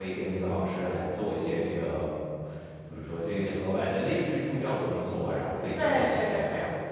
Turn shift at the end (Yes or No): Yes